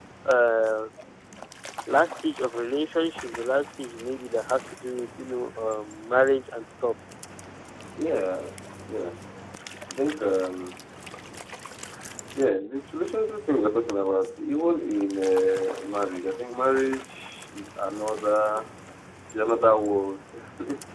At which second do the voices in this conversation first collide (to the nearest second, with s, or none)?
none